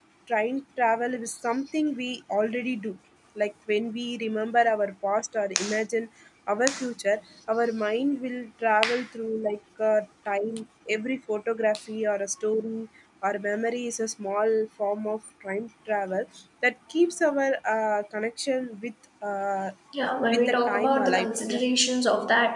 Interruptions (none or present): present